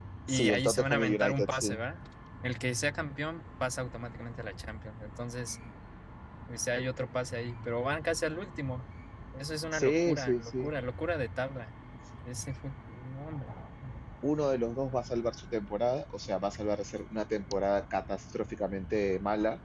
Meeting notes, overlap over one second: present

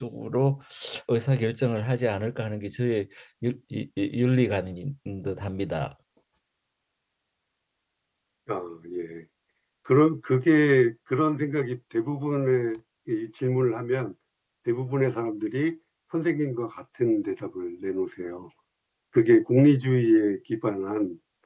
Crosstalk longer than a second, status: none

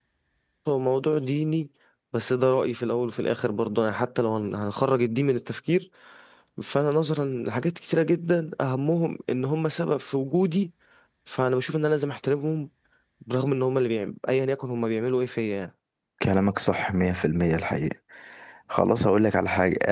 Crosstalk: none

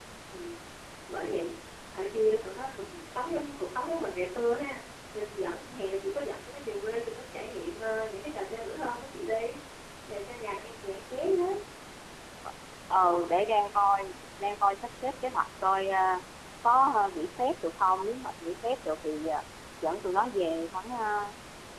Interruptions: none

